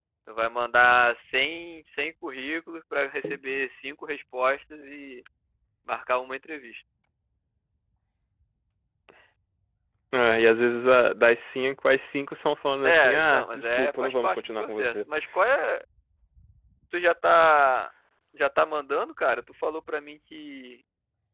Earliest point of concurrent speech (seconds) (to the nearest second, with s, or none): 13 s